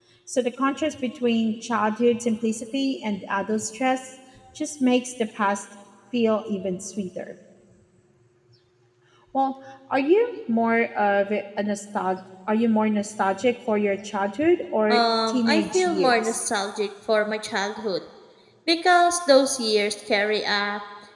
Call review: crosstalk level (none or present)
present